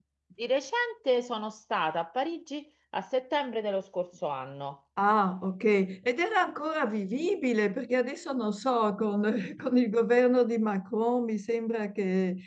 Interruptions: none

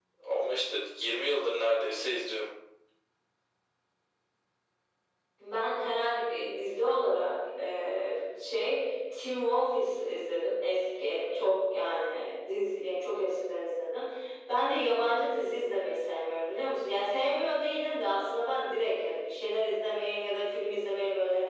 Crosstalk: none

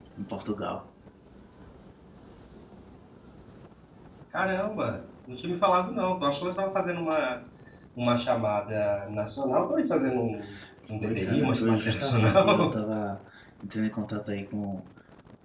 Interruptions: present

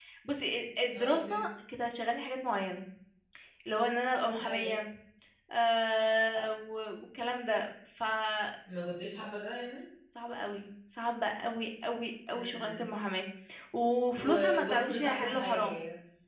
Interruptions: present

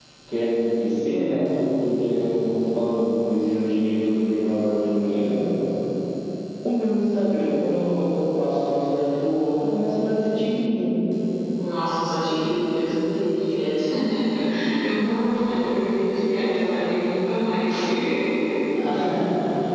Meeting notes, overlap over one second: none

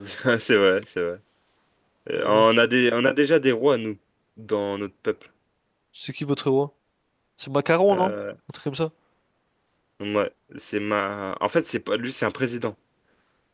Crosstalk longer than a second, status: none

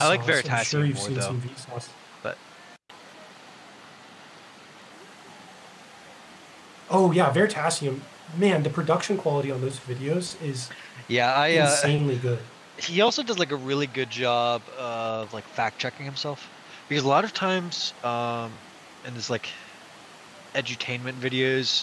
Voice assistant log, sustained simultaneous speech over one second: present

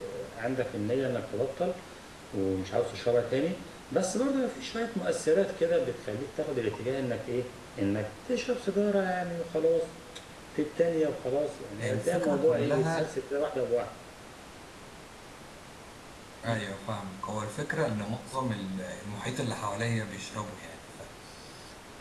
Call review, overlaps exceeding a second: present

